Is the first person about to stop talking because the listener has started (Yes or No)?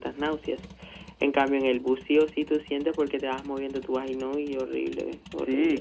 Yes